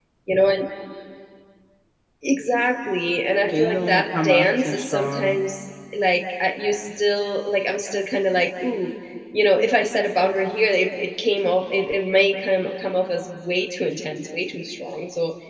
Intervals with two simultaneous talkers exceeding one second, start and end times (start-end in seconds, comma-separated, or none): 3.5-5.4